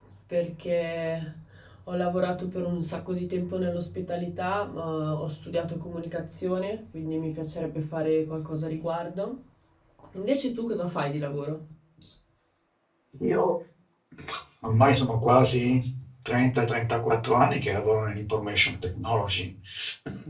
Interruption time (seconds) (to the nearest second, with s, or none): none